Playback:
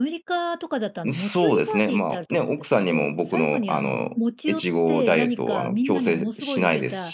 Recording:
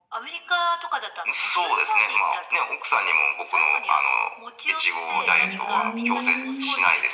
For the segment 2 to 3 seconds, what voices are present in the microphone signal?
echo only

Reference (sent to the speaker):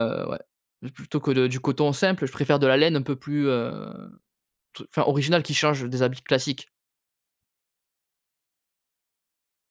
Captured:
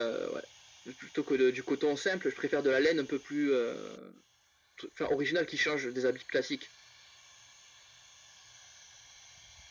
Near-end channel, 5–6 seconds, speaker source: echo only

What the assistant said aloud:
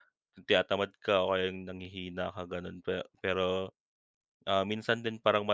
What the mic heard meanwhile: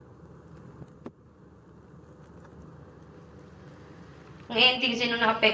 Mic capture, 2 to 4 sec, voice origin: neither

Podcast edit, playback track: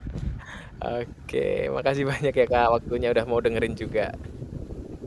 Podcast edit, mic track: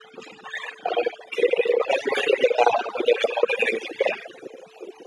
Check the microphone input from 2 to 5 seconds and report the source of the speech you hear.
echo only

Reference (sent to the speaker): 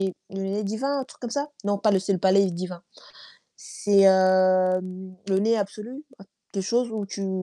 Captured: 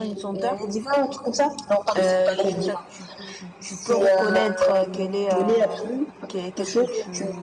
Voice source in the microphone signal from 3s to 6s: both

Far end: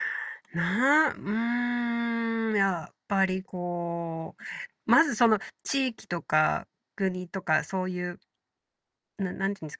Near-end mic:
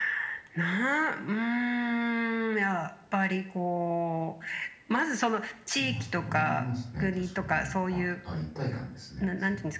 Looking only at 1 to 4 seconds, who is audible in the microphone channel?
echo only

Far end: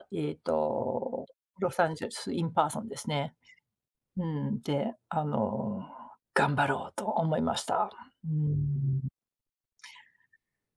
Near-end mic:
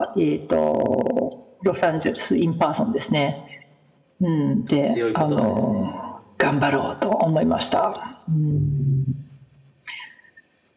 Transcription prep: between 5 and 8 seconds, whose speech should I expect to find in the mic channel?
both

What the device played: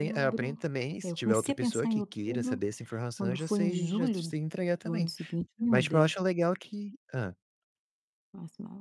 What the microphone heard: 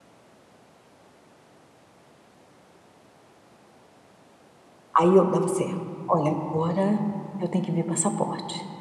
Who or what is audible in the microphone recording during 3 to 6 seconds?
user only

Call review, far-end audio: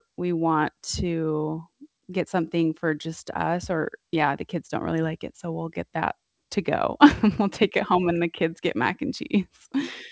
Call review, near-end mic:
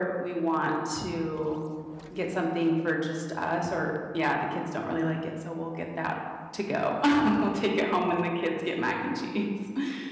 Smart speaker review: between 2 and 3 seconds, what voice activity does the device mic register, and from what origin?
echo only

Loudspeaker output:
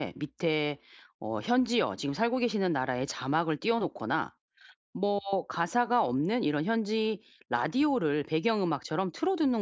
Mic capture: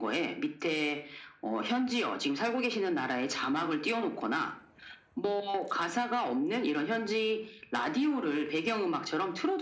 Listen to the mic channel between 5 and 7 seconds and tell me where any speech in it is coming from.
echo only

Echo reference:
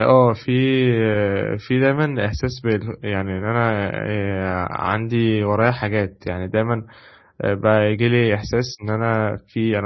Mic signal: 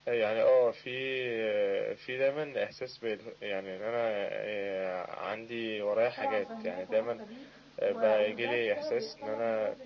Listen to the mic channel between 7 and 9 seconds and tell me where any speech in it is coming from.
both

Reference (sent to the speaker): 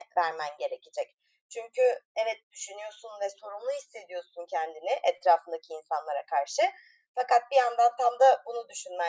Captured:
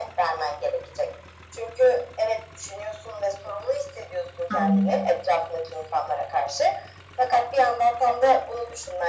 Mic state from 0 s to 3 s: echo only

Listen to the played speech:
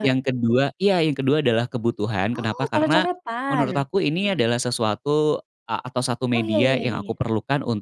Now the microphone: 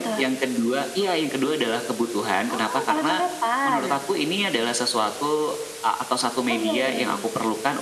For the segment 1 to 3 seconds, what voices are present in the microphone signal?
echo only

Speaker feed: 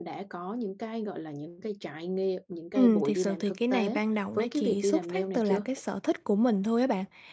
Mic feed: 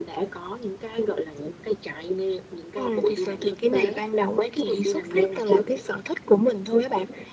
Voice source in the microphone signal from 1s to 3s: echo only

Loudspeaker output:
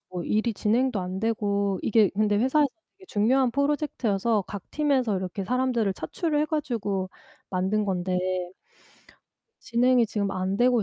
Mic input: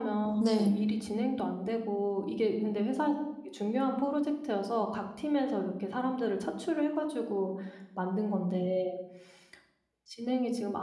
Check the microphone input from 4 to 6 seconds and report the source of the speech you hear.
echo only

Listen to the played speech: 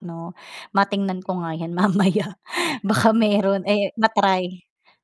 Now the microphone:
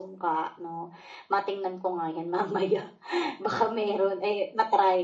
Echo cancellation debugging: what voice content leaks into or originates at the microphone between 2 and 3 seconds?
echo only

